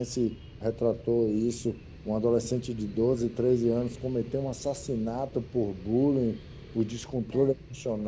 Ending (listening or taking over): listening